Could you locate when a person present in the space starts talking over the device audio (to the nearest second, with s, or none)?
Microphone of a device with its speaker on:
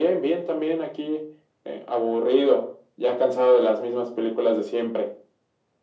none